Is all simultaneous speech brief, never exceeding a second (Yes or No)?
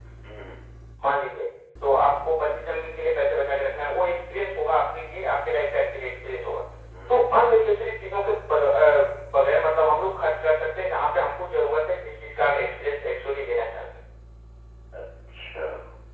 Yes